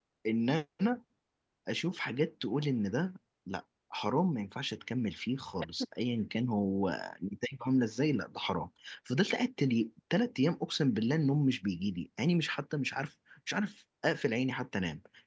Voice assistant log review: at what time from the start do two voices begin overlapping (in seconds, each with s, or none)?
none